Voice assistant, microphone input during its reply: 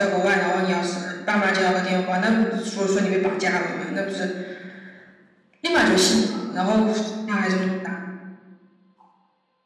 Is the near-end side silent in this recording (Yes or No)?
Yes